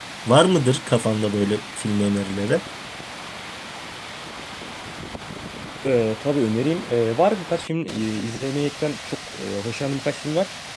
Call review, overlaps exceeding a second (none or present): none